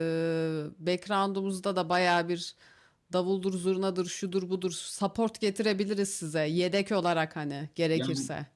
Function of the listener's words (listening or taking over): taking over